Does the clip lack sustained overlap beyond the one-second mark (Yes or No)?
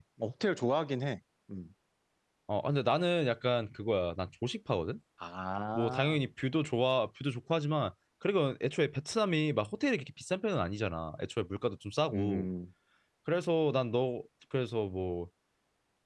Yes